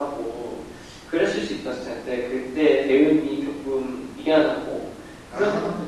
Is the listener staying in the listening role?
Yes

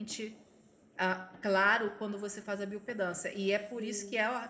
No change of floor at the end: Yes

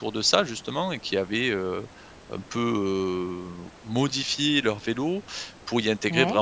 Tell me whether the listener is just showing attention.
Yes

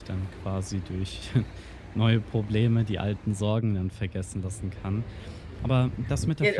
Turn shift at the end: Yes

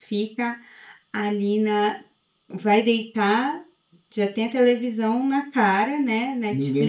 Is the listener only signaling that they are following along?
No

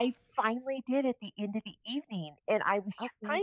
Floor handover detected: No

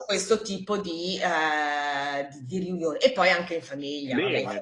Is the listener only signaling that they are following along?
No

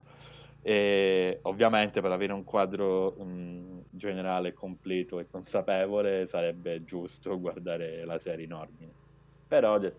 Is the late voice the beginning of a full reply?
No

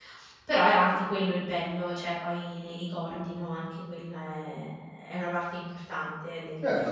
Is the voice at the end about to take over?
Yes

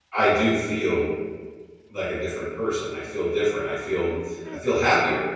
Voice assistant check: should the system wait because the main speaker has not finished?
No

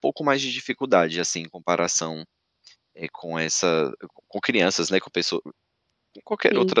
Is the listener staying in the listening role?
No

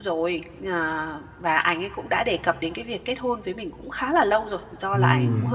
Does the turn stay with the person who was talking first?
Yes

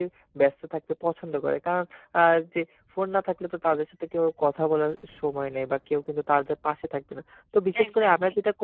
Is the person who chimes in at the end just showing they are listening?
Yes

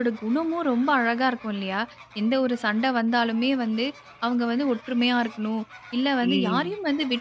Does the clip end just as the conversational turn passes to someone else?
No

